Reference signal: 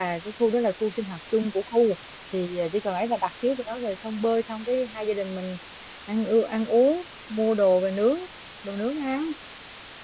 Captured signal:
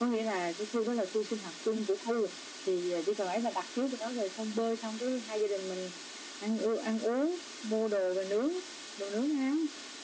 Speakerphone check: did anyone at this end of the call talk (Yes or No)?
No